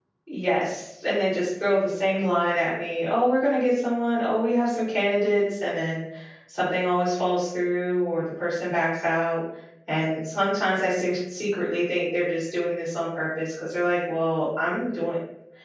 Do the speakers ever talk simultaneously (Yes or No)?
No